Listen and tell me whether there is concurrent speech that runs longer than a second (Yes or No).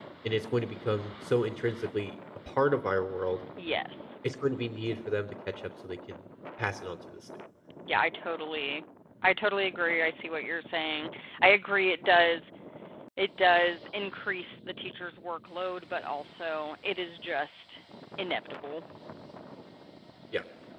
No